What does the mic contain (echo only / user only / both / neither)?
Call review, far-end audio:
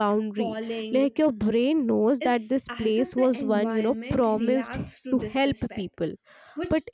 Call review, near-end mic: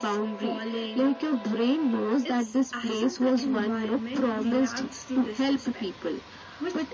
echo only